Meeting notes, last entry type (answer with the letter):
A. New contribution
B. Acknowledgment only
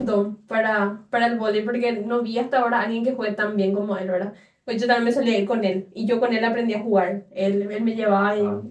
B